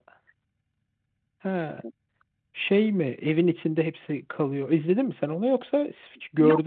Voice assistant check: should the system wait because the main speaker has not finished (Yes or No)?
No